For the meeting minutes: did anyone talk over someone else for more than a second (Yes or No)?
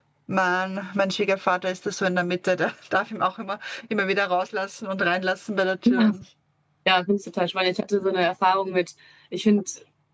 No